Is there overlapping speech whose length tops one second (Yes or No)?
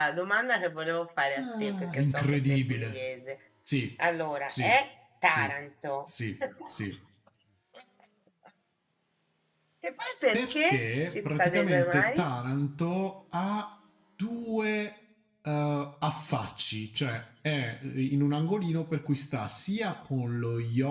Yes